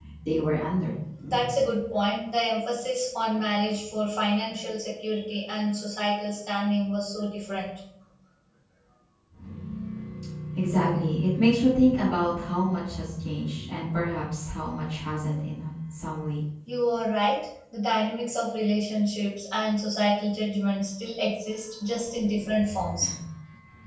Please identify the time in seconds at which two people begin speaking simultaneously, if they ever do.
none

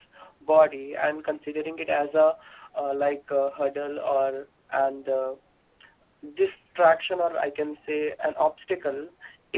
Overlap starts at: none

